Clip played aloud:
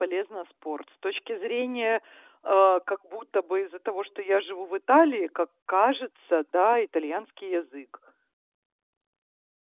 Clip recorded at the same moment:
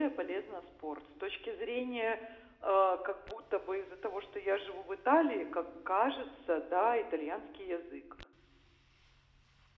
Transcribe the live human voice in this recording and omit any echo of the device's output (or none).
none